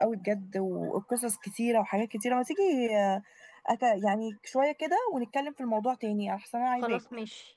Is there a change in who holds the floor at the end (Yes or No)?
Yes